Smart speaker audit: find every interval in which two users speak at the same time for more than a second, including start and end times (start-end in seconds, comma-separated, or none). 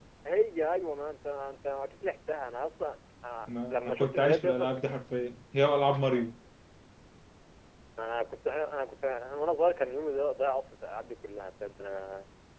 3.5-4.9